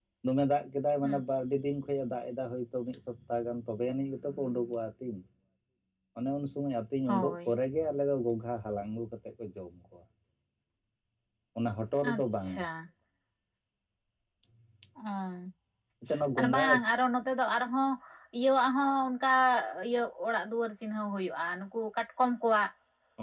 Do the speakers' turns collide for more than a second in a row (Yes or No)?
No